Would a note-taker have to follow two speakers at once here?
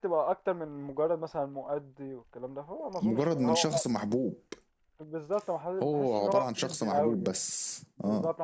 Yes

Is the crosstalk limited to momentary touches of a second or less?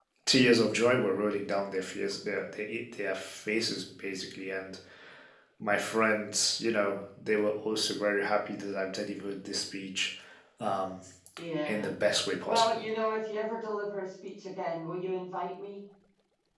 Yes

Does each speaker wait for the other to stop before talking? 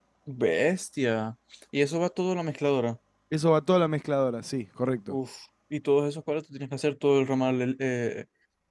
Yes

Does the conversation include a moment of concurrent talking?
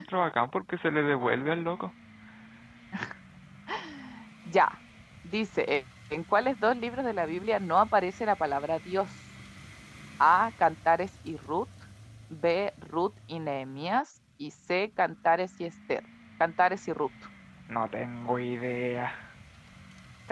No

